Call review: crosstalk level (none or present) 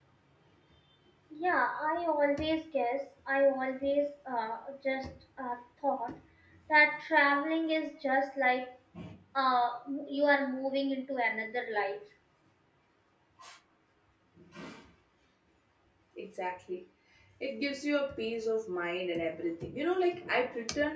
none